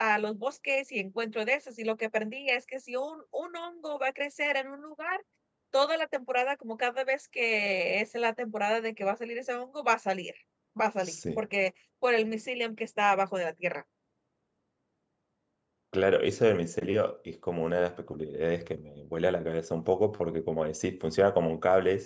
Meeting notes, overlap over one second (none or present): none